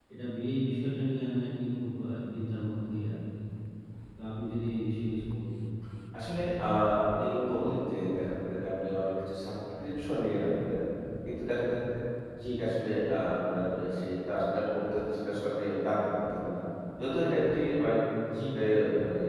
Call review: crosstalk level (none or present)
none